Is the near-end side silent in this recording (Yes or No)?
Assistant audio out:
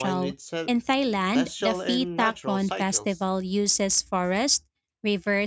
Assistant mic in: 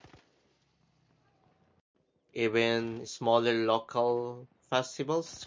No